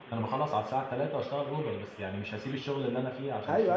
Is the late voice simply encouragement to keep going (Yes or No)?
No